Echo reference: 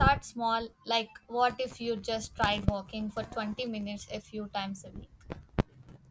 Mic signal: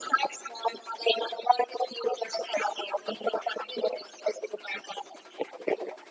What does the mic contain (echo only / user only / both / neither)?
echo only